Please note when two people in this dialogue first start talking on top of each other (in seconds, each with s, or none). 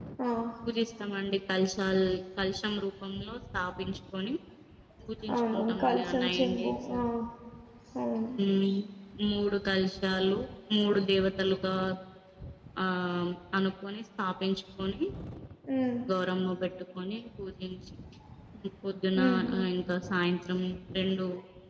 5.3 s